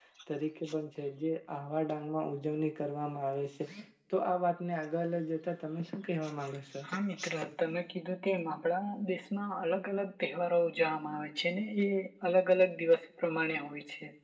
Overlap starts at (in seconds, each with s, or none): none